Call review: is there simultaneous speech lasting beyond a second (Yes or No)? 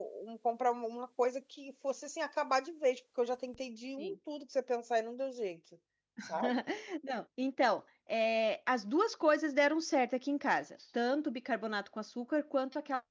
No